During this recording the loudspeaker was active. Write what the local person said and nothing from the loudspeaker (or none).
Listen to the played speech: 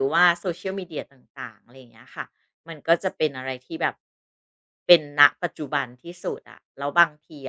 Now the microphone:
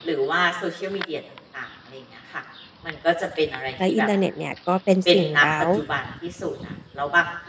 แล้วอินเทอร์เน็ตเนี่ยก็เป็นสิ่งเร้า